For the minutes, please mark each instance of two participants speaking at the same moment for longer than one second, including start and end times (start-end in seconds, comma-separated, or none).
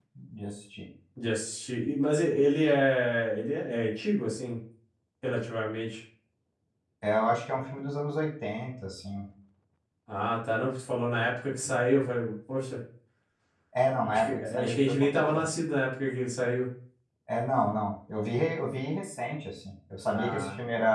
14.1-15.5